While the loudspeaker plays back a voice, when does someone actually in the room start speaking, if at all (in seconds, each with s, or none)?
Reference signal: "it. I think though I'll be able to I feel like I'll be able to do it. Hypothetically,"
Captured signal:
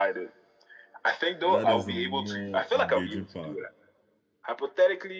1.4 s